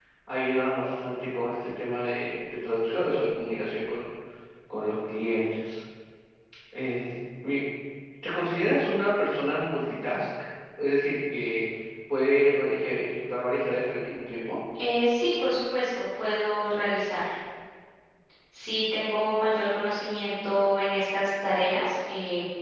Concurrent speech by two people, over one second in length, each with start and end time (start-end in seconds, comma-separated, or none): none